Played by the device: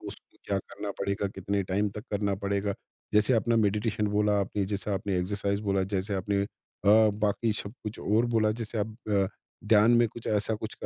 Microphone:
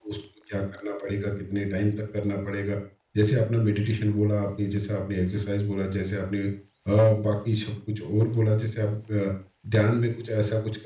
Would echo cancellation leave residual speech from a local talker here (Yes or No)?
No